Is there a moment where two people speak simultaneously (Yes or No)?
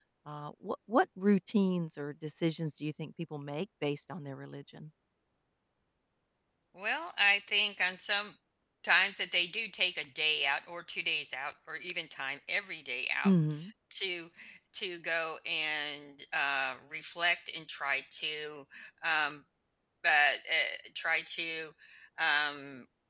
No